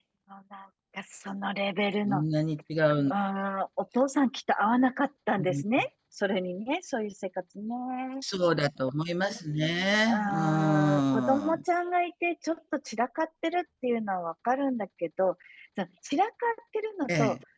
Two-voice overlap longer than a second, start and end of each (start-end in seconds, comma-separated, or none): 10.1-11.6